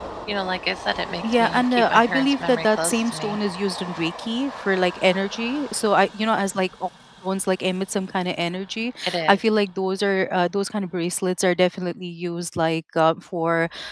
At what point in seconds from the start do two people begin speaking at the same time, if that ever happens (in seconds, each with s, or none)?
1.3 s